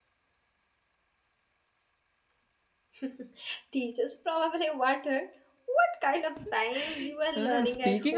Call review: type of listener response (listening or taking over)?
taking over